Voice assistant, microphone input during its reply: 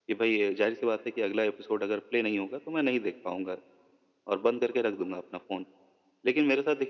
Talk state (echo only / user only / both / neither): echo only